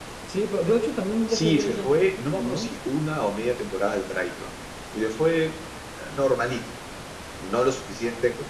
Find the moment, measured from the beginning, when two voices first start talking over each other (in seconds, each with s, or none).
1.3 s